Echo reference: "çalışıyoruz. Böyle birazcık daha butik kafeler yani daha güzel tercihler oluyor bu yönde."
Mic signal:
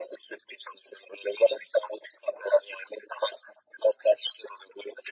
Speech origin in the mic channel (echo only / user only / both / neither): echo only